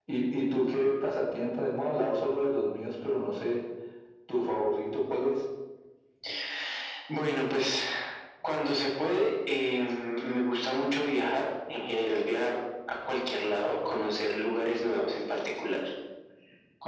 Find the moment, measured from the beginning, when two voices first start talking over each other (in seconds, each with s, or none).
none